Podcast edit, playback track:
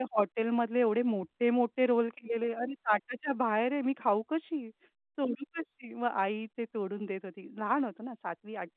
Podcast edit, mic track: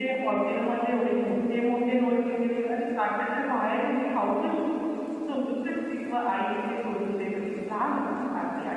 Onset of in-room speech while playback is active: none

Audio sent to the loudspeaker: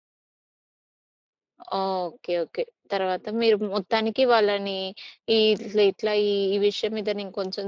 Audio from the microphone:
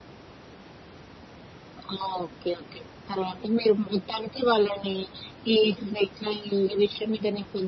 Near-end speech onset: none

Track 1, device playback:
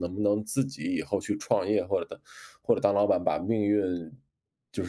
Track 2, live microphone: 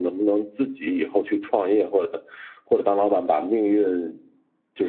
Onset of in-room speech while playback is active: none

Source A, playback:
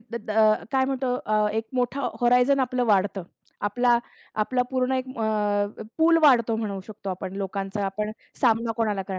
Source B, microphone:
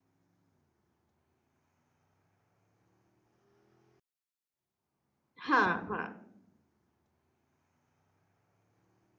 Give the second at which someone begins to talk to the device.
5 s

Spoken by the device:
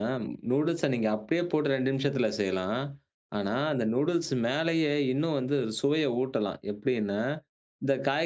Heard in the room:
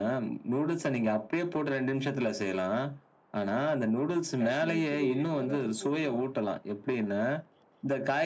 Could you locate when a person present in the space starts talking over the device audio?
4 s

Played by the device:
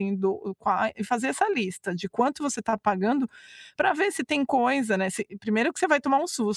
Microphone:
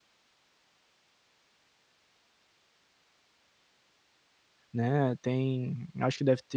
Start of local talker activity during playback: 5 s

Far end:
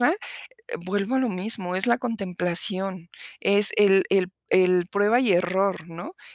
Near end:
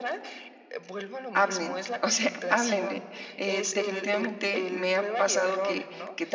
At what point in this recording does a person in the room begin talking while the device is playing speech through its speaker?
1 s

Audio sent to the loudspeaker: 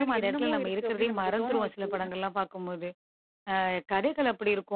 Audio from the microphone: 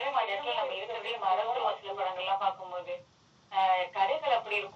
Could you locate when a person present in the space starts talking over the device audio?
none

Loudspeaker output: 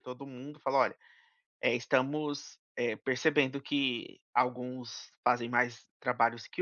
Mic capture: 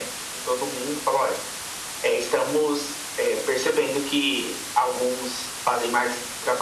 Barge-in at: none

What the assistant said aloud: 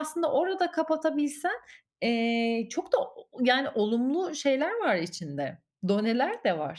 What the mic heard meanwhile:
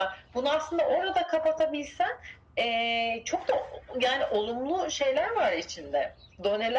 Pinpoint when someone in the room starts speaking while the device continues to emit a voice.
none

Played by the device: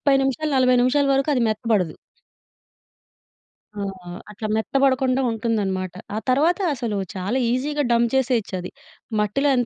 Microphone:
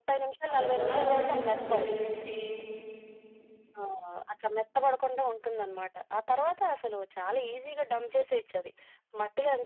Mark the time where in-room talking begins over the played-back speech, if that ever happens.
1 s

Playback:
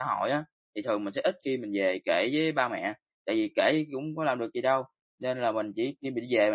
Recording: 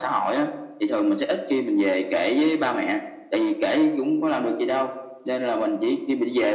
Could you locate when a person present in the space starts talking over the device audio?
none

